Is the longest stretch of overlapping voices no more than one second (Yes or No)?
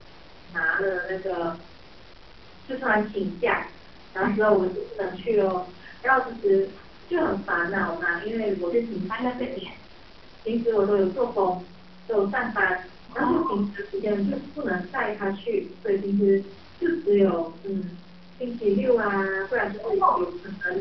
Yes